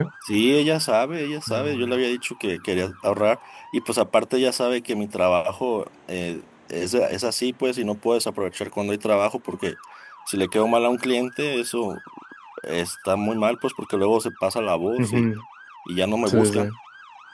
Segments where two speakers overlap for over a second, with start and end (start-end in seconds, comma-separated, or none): none